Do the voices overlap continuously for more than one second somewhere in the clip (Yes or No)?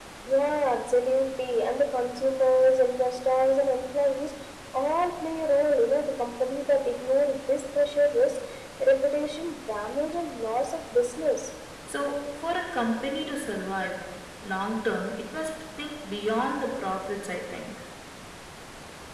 No